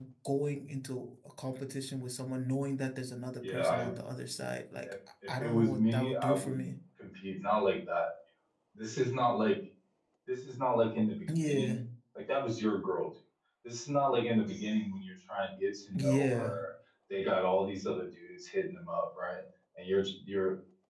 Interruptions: present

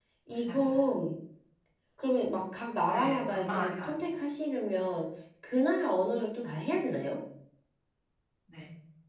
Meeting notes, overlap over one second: present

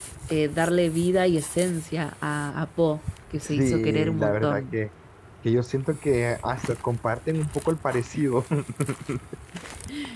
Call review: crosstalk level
present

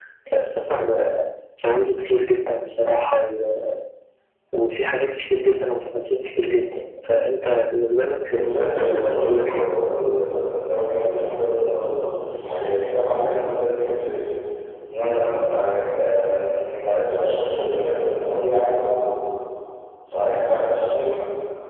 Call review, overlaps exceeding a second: present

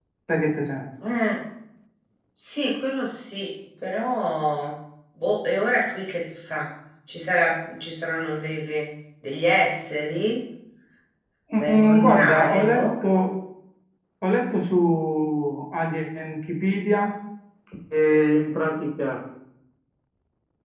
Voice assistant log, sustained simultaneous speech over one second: present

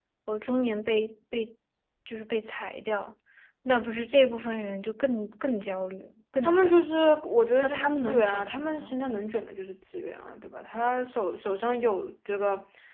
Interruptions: present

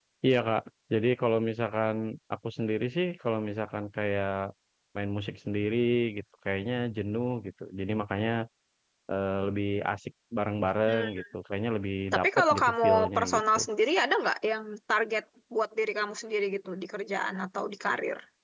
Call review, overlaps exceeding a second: present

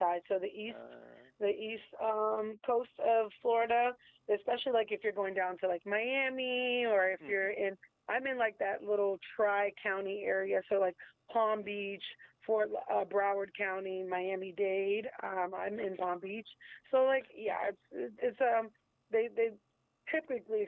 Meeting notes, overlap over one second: none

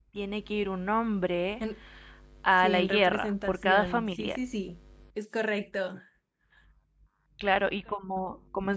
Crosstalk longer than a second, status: present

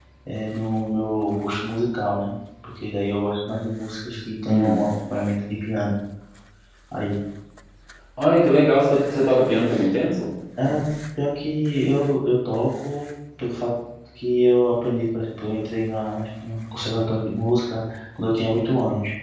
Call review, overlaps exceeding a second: none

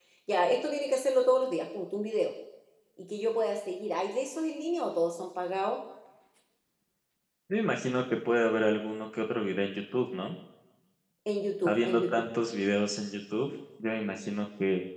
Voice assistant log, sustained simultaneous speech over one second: none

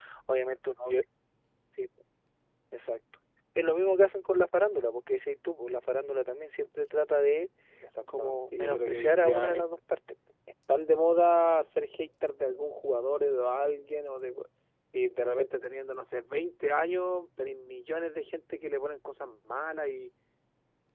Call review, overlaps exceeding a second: present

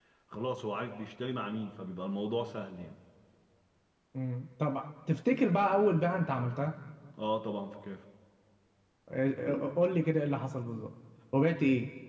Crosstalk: none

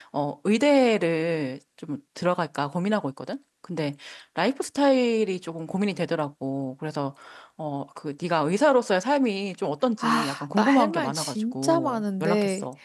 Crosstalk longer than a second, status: present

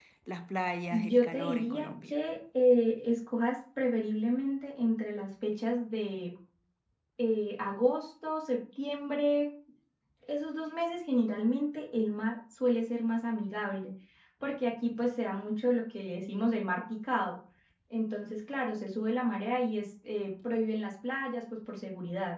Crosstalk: present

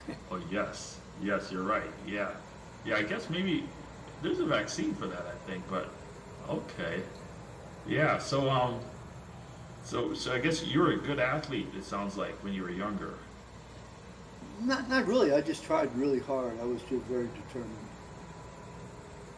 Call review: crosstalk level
none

